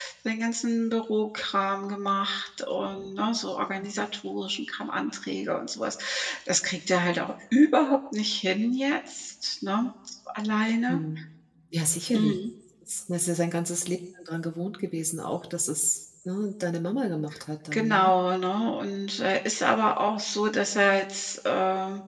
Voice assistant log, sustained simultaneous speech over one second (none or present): none